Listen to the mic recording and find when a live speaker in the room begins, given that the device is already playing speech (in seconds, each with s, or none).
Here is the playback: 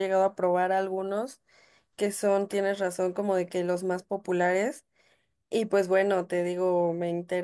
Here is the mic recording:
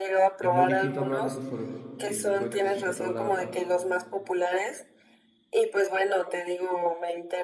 0.4 s